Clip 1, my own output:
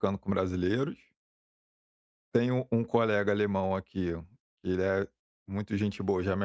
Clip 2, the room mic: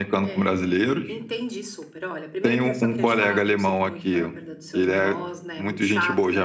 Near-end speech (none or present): present